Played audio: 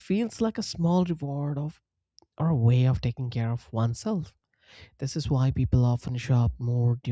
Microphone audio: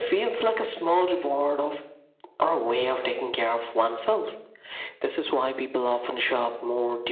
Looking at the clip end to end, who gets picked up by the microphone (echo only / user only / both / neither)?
echo only